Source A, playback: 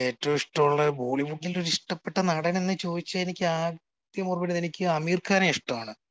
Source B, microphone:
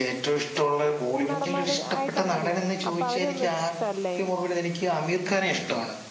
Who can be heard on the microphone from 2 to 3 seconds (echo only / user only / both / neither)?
both